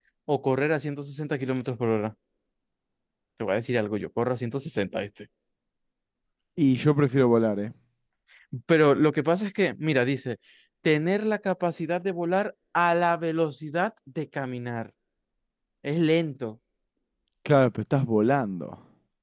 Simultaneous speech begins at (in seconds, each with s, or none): none